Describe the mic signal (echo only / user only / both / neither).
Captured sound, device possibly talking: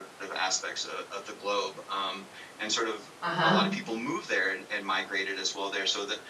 both